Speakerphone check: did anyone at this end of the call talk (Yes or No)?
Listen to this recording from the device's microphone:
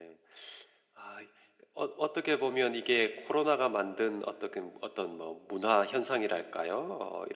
Yes